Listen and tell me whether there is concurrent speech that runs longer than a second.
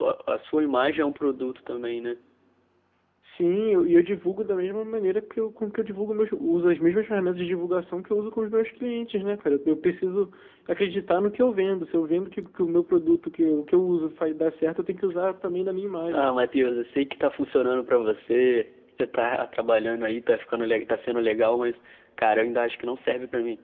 No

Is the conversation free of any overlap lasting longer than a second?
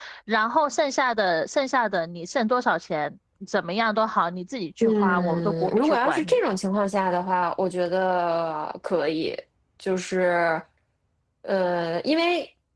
No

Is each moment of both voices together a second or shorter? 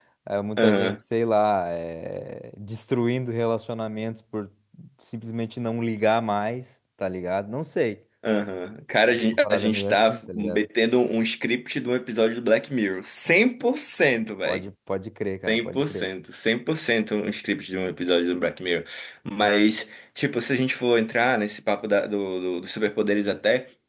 No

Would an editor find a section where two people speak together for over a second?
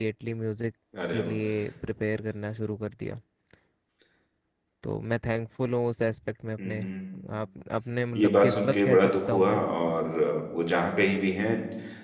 Yes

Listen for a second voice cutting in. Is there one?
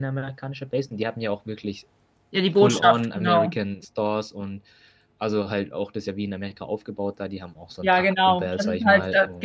Yes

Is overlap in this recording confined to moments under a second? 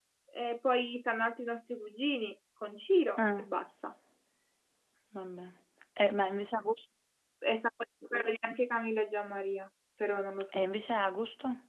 Yes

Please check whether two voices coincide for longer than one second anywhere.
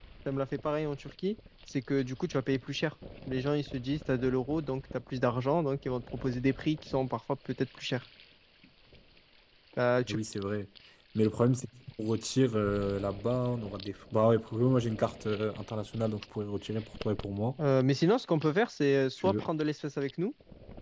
No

